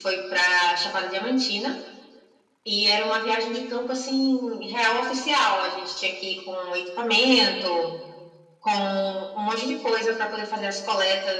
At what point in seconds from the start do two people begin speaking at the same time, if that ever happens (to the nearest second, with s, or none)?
none